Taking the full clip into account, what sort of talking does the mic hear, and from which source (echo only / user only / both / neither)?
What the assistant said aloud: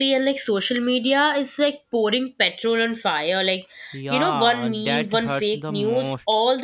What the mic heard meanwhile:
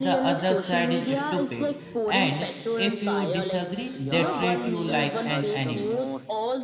both